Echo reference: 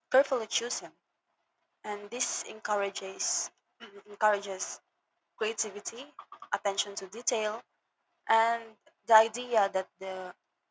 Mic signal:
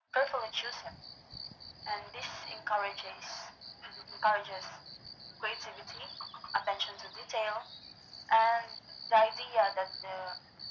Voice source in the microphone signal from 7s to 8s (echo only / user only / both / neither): echo only